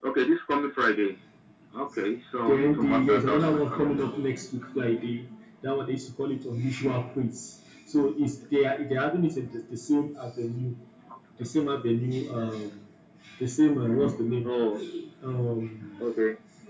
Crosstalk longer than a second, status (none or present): present